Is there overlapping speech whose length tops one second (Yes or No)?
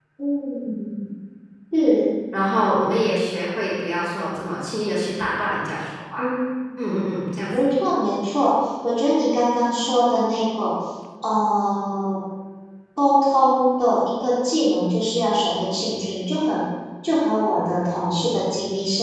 No